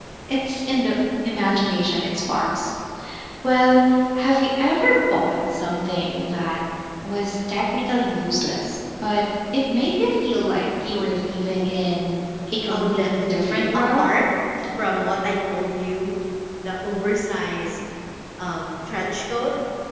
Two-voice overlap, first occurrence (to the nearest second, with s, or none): 13 s